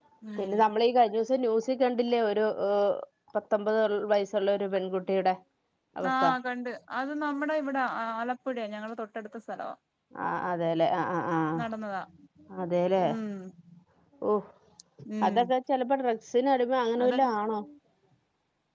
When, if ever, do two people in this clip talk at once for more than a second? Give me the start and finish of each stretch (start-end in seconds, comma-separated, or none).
none